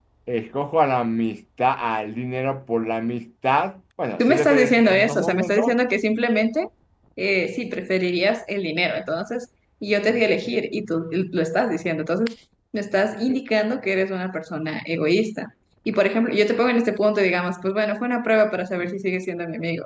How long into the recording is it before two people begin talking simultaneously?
4.2 s

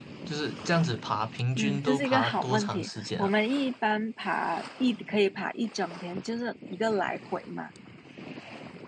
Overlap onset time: 1.6 s

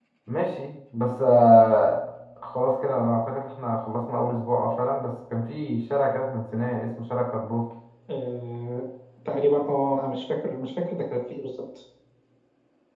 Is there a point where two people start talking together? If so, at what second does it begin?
none

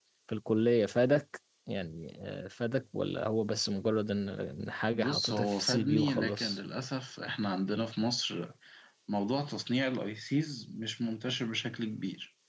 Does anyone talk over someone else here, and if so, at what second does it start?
5.0 s

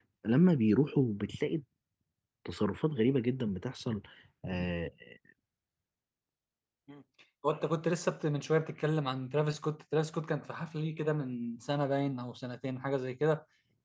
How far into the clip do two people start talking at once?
none

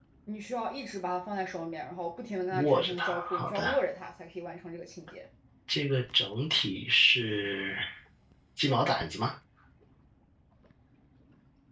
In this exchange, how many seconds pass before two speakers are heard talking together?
2.5 s

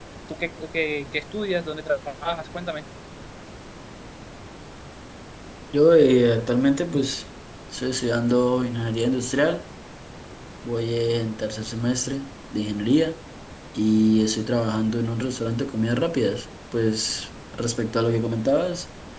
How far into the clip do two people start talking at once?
none

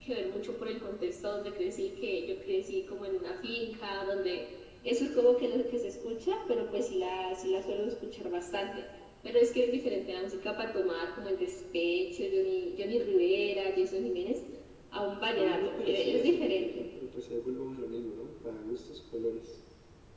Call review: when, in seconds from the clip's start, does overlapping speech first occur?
15.4 s

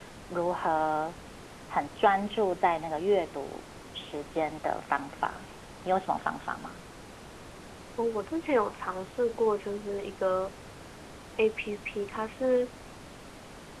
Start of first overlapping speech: none

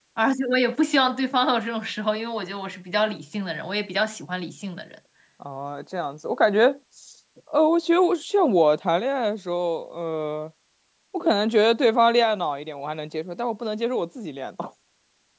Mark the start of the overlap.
none

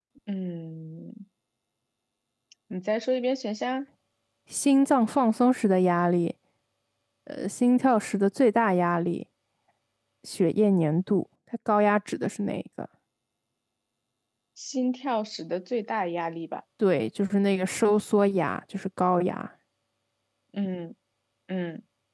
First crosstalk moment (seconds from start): none

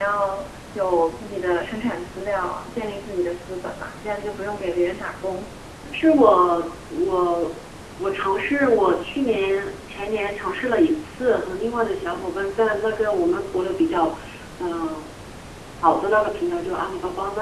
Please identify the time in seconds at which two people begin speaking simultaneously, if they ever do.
none

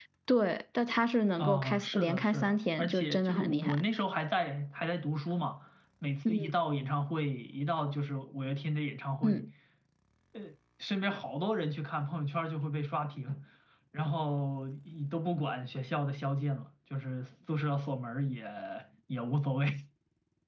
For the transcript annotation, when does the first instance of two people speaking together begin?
1.4 s

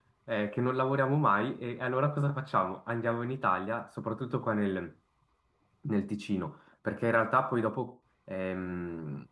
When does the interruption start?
none

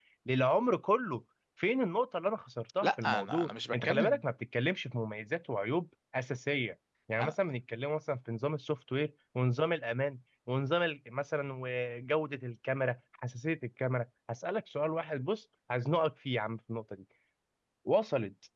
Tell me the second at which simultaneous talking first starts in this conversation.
2.8 s

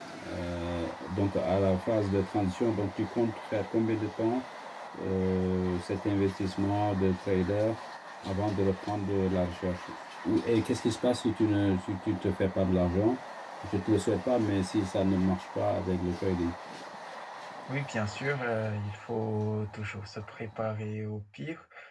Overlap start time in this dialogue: none

